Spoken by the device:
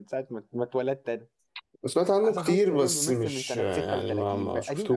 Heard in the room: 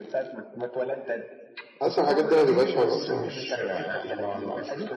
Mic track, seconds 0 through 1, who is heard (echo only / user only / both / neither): echo only